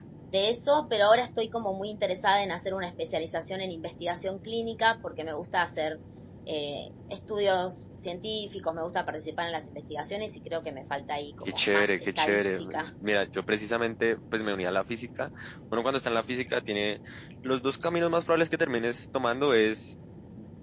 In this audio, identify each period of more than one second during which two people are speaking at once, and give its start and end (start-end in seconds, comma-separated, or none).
11.5-12.9